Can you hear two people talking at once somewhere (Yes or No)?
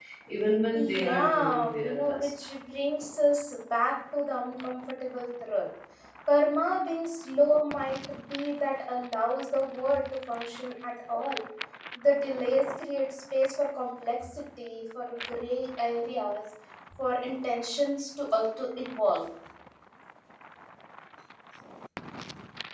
Yes